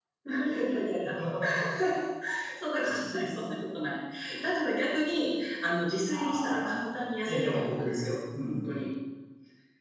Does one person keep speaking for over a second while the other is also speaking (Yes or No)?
Yes